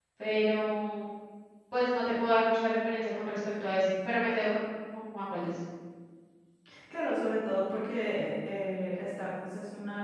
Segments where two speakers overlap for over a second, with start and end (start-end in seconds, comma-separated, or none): none